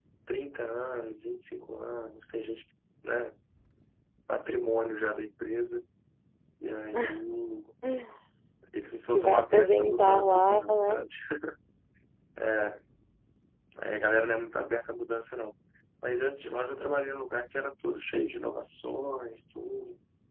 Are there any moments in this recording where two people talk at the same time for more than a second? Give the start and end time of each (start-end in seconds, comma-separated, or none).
9.1-11.1